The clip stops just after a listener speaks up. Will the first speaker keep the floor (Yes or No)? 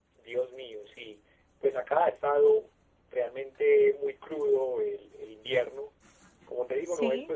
Yes